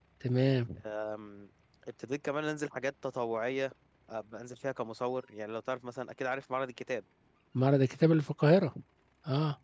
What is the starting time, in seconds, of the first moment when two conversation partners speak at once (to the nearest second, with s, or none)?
none